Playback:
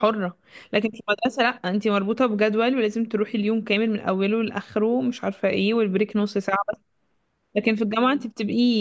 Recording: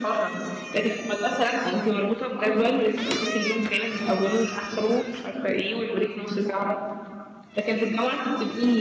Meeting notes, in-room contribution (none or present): none